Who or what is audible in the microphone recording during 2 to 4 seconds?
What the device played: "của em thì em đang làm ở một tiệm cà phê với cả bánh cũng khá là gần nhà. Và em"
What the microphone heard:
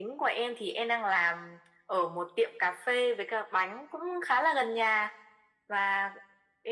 echo only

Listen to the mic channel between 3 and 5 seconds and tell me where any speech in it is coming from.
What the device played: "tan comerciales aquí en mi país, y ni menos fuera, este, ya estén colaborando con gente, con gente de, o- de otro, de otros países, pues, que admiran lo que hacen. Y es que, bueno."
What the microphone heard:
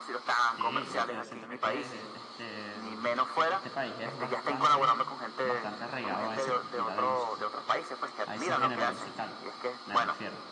both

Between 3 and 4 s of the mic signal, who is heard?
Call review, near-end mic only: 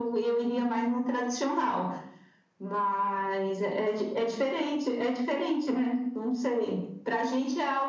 echo only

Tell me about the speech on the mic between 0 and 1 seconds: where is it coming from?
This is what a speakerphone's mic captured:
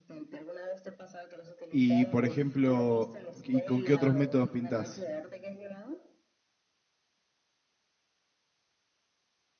echo only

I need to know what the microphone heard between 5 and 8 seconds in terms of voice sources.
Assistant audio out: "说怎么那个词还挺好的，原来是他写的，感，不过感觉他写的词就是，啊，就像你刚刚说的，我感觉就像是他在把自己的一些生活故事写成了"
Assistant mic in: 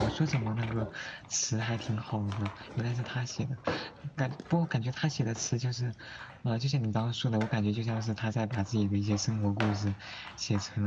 echo only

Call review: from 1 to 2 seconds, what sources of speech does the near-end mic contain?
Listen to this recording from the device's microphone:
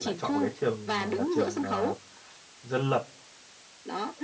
both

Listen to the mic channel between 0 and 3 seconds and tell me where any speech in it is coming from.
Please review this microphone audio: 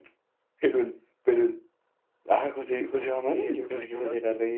echo only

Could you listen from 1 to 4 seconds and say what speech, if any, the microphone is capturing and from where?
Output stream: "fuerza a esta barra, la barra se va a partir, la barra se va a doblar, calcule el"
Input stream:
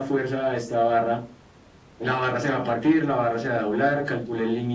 echo only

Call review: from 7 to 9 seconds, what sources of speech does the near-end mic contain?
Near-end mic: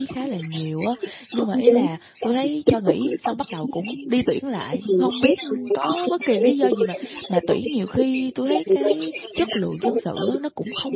both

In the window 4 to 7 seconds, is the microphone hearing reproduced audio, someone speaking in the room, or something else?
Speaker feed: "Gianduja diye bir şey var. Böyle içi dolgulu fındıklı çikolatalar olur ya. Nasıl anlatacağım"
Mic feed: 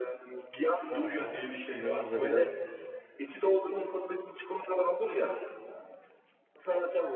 echo only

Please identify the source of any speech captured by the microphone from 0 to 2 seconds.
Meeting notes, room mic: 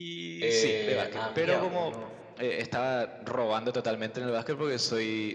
both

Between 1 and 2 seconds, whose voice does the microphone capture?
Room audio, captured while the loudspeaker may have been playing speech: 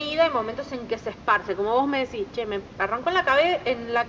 echo only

